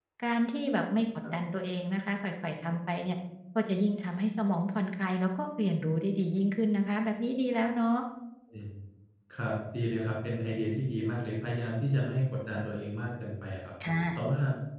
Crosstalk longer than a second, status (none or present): none